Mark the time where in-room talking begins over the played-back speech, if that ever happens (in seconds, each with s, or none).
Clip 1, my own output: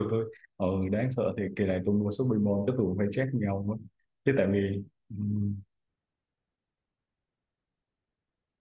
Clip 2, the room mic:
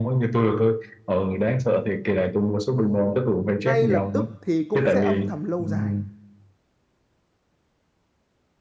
3.6 s